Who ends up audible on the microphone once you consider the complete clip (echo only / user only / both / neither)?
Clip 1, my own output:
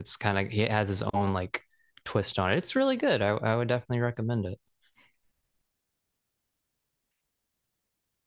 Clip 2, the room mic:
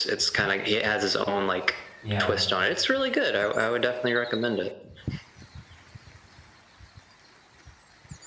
both